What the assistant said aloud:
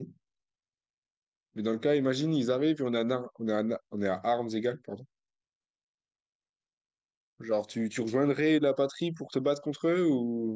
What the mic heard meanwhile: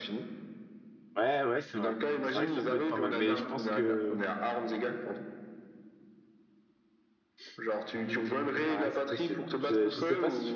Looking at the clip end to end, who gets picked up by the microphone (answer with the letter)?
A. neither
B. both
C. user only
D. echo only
B